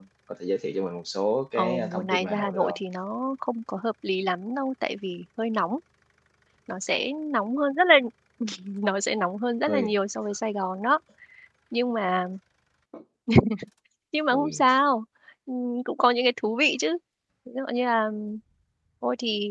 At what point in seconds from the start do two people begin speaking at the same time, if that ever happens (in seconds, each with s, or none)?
1.6 s